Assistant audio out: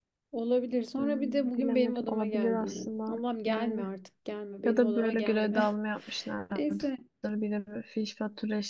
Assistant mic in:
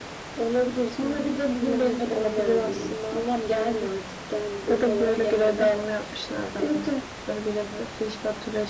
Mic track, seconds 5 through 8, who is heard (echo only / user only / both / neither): echo only